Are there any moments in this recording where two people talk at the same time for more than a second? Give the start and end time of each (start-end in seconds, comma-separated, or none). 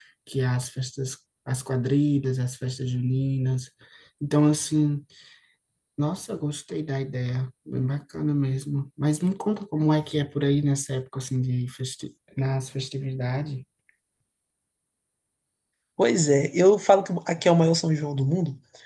none